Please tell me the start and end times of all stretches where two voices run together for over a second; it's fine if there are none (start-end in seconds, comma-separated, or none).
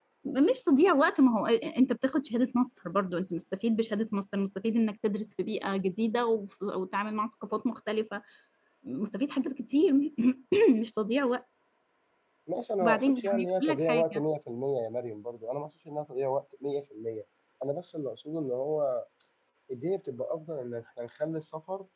12.8-14.2